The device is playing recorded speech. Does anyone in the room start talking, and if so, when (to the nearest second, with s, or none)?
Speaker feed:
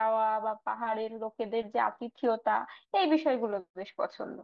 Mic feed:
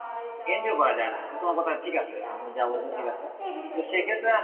1 s